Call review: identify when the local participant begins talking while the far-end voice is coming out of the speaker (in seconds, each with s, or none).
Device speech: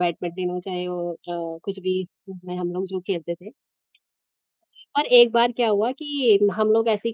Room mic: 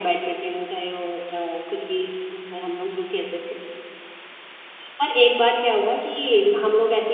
none